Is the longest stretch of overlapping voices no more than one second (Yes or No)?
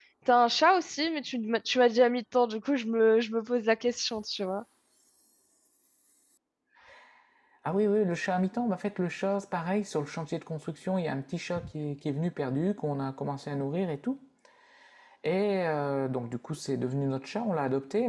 Yes